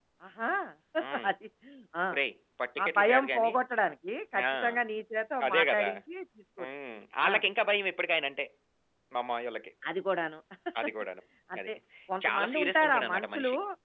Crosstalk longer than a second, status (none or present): present